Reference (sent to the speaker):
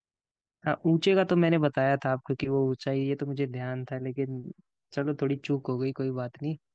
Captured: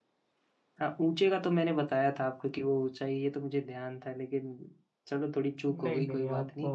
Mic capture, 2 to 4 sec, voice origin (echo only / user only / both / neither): echo only